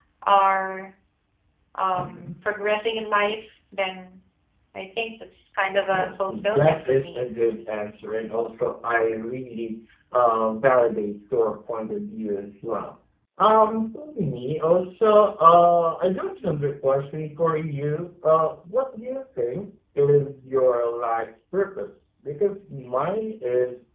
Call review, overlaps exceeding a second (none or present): present